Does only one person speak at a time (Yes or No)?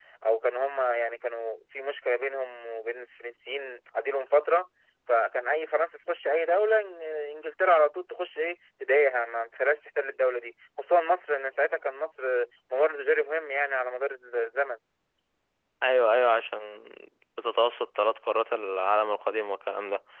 Yes